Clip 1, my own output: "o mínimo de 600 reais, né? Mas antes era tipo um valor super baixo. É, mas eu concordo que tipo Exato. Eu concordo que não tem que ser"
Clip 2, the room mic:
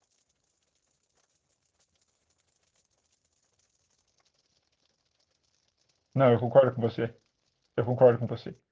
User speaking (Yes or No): Yes